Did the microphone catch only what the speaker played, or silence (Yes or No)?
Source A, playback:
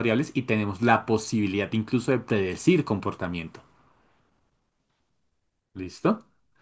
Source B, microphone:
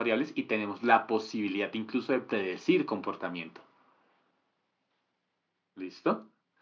Yes